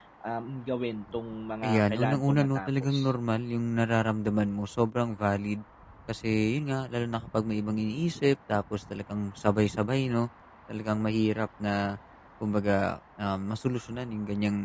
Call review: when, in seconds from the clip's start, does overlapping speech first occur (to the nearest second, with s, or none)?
2 s